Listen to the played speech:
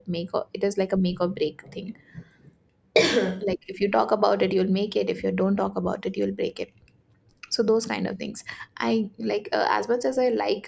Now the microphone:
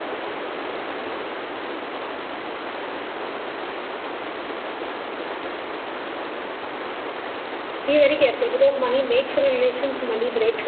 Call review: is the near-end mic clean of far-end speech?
Yes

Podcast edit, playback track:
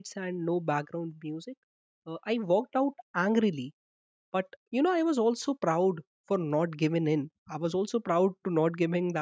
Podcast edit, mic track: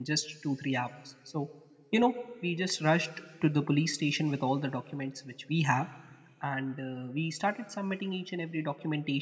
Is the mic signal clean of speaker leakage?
Yes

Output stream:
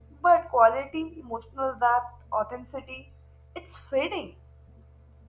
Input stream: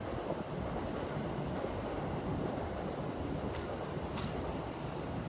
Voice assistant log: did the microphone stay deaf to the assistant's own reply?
Yes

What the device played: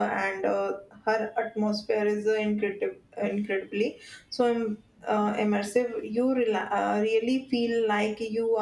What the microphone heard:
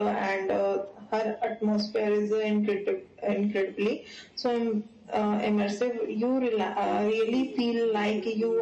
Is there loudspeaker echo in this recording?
Yes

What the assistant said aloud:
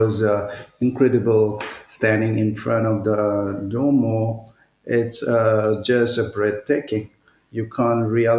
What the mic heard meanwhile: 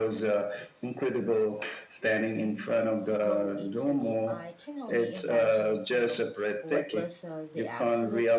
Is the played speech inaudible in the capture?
No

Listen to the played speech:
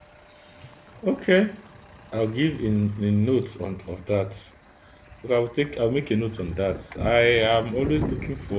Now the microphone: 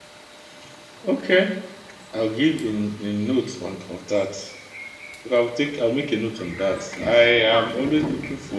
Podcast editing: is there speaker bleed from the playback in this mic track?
Yes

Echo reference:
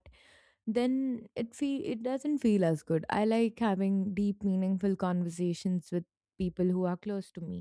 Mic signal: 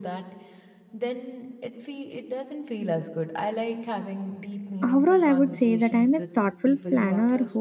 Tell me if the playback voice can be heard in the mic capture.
Yes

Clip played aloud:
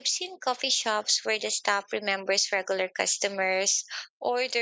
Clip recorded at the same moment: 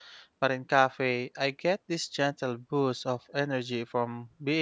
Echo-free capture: Yes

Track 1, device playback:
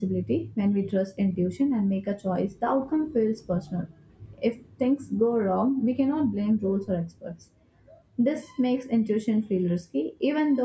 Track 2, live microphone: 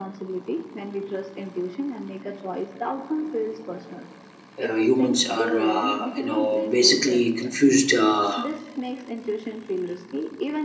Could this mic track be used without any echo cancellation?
No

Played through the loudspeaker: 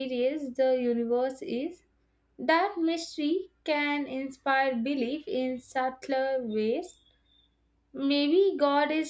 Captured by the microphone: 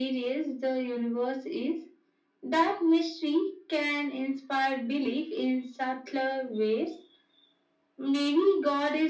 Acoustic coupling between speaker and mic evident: Yes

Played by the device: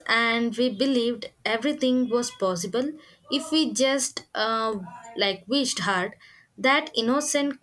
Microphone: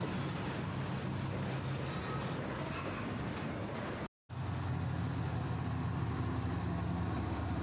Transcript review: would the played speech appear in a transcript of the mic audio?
No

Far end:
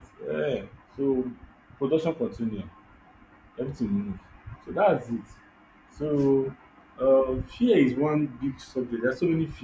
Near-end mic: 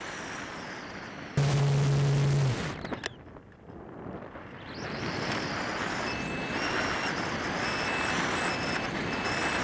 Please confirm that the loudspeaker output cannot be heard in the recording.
Yes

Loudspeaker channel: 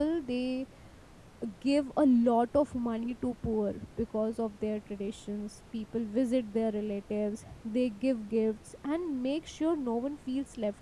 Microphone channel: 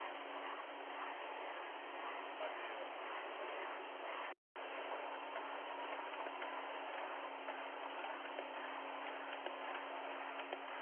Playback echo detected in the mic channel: No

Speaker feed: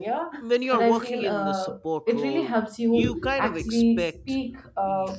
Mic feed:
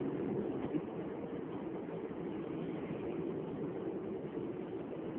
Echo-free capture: Yes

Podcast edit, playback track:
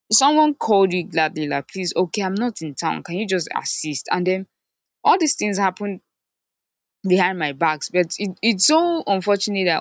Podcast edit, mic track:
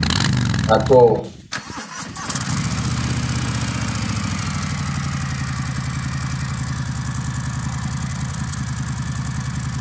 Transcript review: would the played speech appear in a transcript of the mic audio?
No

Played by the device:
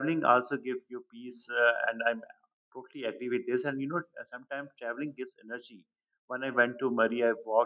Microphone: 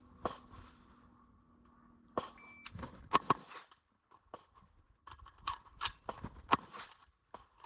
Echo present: No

